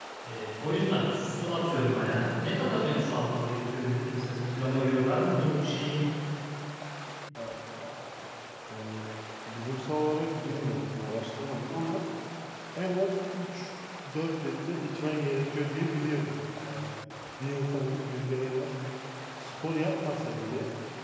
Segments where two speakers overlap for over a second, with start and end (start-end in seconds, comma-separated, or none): none